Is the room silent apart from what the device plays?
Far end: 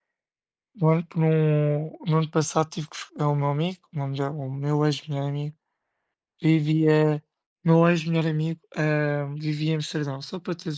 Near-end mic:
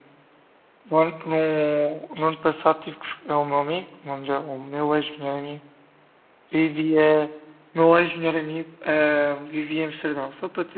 Yes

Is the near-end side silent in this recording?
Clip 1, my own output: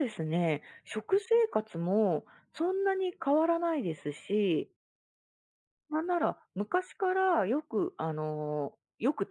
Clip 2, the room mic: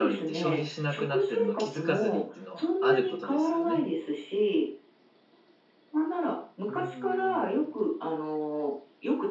No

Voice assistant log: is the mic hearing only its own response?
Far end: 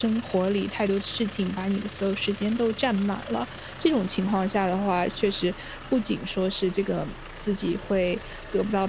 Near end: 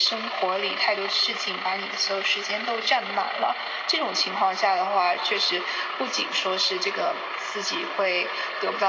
Yes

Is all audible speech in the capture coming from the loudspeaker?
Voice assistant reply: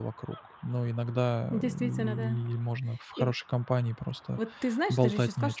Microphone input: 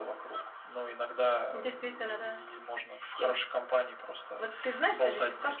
Yes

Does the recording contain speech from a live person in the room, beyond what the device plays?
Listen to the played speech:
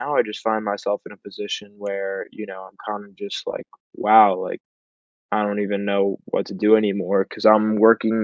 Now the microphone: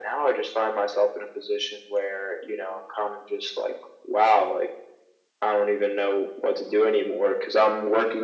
No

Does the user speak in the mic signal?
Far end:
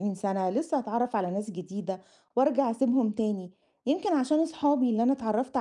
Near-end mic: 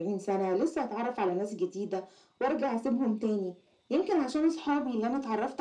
No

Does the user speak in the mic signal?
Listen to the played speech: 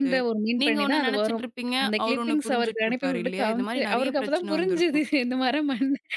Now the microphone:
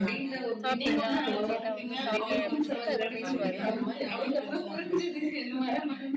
Yes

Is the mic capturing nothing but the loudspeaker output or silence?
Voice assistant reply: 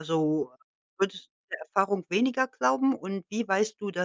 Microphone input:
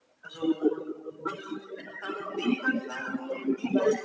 Yes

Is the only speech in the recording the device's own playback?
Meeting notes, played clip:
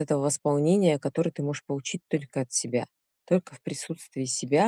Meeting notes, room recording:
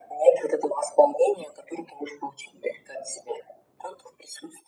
Yes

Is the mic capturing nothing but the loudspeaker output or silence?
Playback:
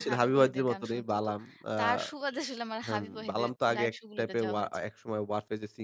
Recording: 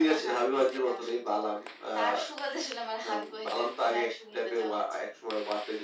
Yes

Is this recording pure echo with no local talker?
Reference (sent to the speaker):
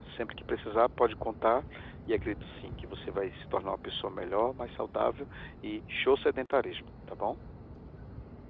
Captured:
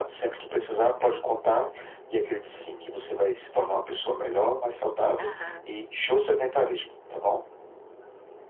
No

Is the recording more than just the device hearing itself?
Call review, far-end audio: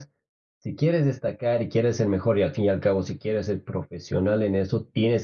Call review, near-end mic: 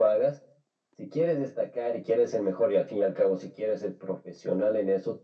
No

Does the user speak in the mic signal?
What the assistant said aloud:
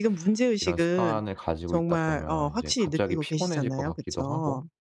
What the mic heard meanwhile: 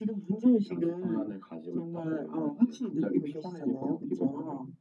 No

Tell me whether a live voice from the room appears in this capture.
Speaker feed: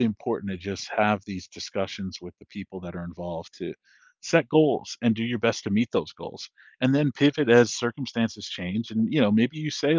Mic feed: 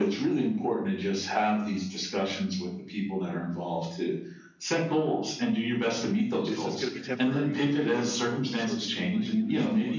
Yes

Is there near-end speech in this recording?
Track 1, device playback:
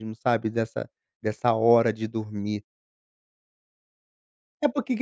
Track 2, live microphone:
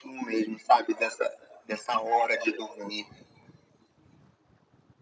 No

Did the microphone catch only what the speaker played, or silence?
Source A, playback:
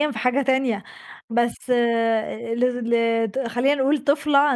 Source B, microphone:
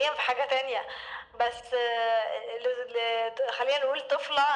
Yes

